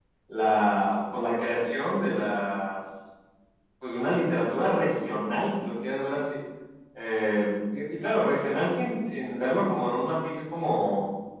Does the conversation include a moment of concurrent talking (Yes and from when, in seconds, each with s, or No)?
No